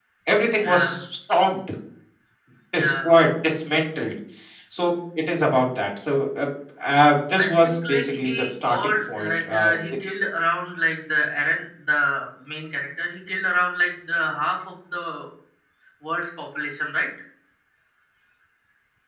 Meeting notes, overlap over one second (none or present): present